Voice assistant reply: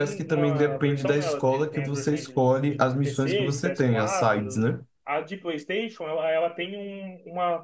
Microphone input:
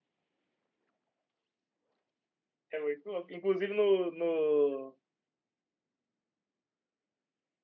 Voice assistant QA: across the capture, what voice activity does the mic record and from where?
user only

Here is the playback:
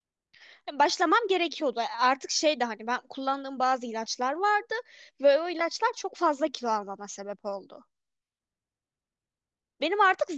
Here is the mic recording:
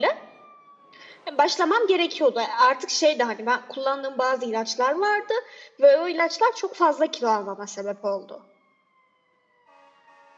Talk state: echo only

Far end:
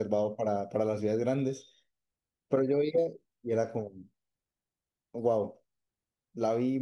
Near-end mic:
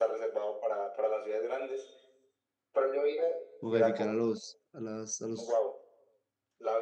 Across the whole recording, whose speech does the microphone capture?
both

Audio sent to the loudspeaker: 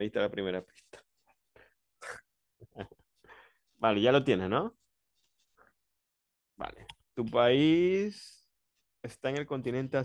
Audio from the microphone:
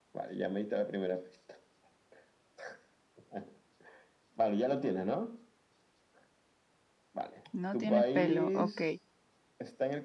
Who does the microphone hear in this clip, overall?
both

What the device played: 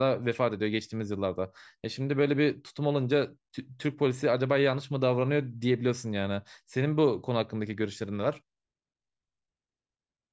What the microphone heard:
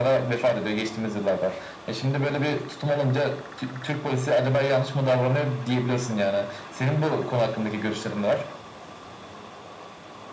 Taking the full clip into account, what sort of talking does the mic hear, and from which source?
echo only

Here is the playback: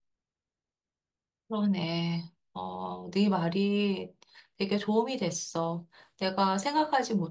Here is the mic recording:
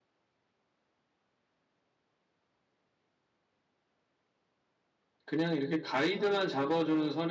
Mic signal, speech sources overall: user only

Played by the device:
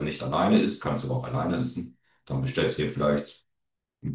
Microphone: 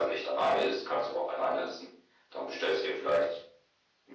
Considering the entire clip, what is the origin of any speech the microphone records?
echo only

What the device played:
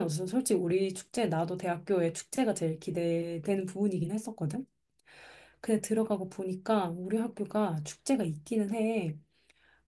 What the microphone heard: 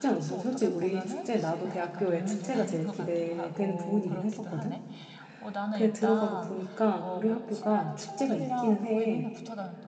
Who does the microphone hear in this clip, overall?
both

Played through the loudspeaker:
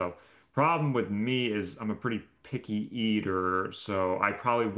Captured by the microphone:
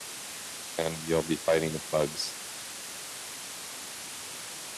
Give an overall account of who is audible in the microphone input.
user only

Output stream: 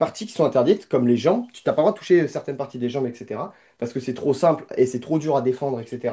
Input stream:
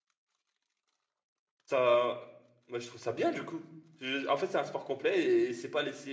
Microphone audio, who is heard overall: user only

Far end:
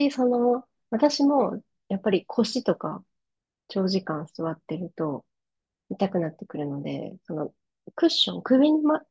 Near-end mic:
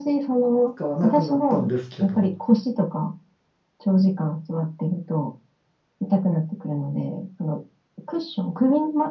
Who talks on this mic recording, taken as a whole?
both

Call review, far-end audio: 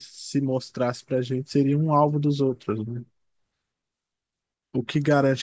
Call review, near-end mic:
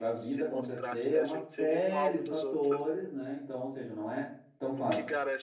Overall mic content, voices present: both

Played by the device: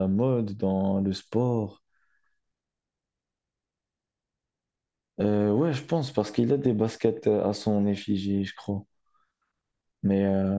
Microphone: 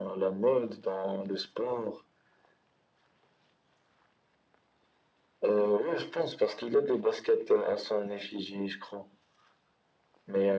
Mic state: echo only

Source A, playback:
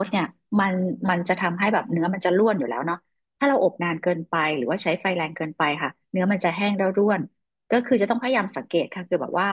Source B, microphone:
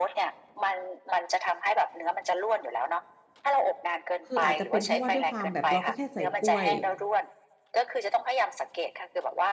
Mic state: both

